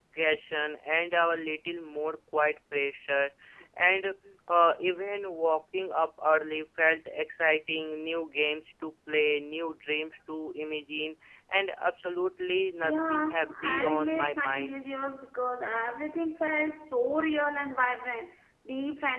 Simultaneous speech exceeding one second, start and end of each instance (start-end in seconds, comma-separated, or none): 12.8-14.7